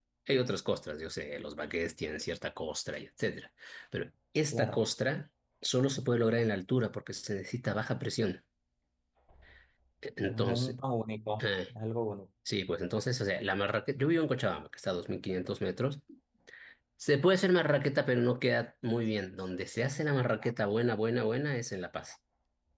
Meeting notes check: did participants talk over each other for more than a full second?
No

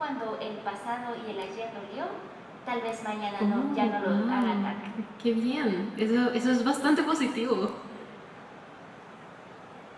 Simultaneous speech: Yes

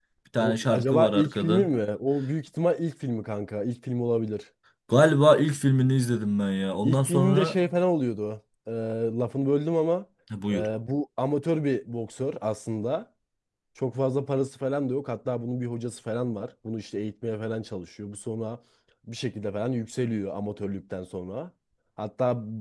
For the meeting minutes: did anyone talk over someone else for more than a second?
Yes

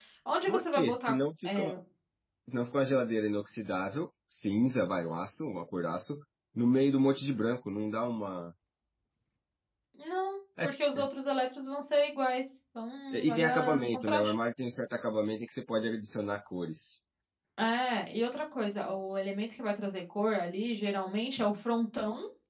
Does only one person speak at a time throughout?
No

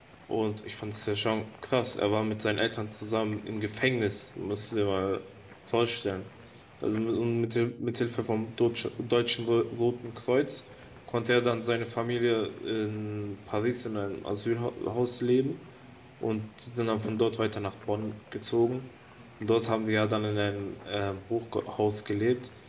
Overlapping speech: No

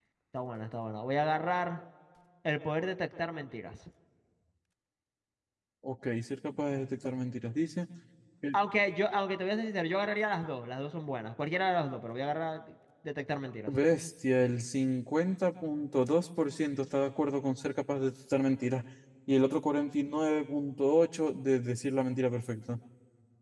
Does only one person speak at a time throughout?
Yes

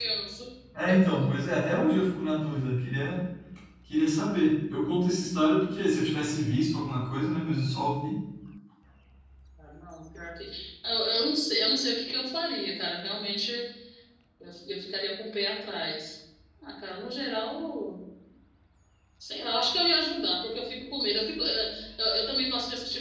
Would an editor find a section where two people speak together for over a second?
No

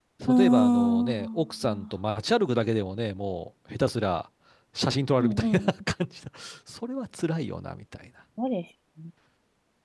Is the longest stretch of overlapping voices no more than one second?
No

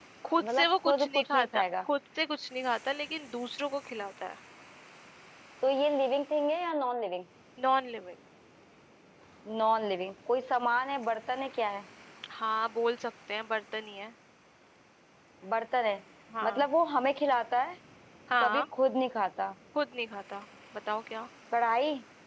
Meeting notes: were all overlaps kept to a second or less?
No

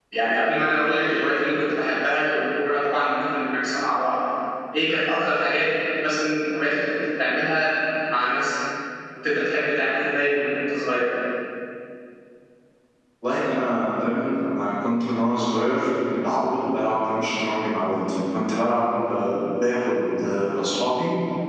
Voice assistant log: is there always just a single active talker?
Yes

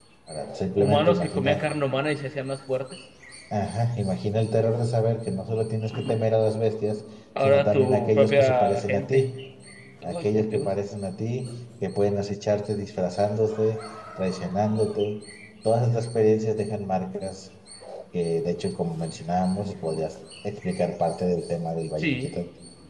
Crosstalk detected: Yes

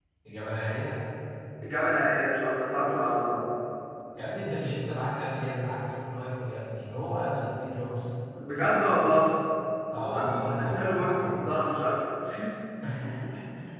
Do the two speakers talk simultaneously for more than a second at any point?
Yes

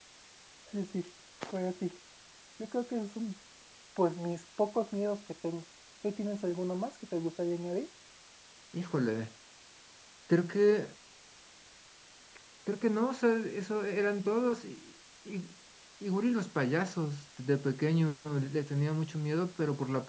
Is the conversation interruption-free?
Yes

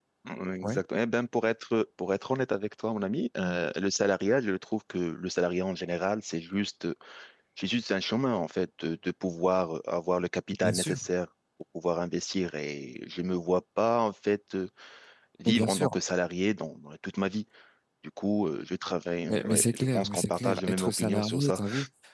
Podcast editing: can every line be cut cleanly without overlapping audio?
No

